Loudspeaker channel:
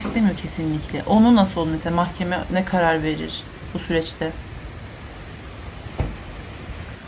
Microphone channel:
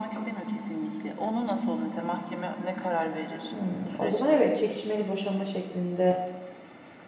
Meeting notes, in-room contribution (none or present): present